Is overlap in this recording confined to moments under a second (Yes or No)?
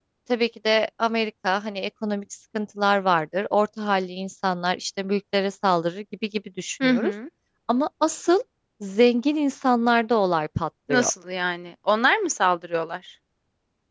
Yes